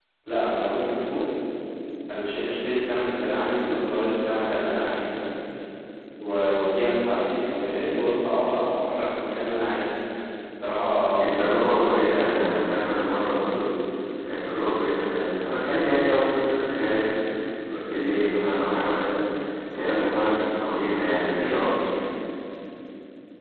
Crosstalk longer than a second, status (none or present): present